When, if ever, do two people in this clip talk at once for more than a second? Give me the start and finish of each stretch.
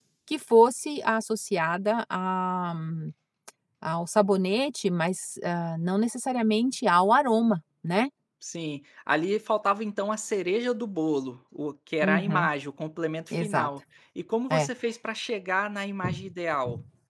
none

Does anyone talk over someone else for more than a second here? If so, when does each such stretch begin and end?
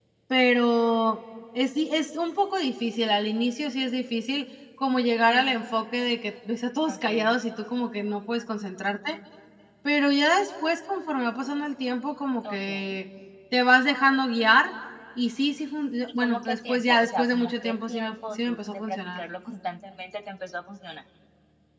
16.2-19.2

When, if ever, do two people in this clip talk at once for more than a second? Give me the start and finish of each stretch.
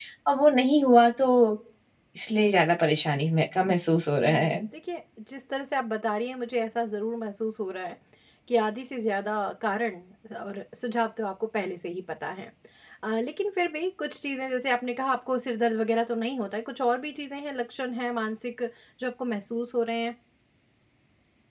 none

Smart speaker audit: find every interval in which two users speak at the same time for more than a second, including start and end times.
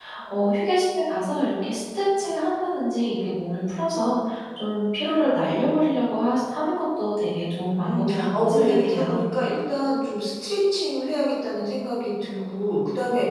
7.8-9.2

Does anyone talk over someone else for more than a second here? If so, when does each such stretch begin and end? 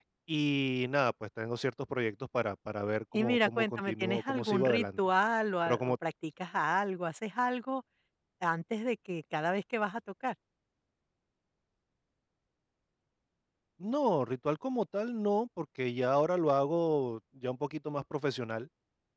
3.1-5.0

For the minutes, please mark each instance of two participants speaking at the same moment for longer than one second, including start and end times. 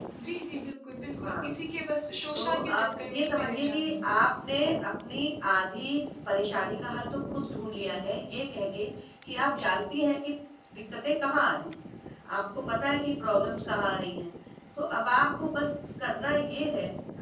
2.3-4.0

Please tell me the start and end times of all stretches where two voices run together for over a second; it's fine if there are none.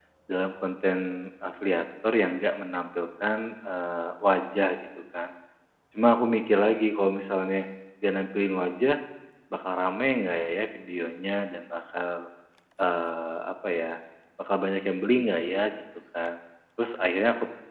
none

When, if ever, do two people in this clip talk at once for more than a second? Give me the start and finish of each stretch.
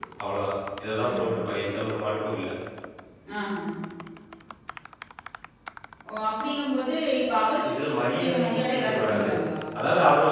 7.7-9.3

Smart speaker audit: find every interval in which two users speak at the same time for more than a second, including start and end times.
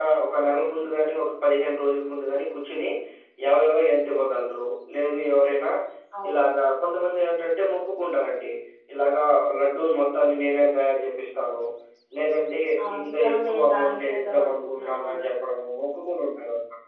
13.0-15.3

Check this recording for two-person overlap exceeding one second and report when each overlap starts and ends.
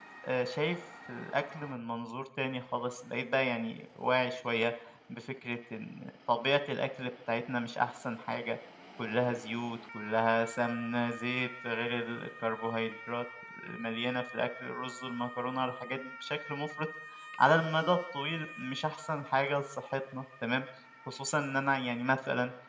none

